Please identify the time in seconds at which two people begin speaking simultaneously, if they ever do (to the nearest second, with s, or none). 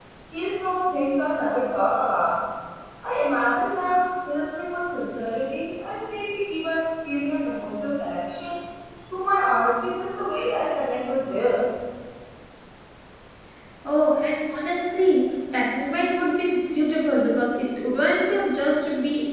none